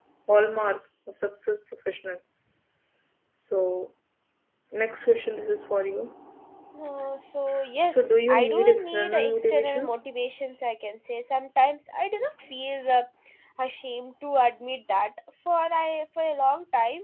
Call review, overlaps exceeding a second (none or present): present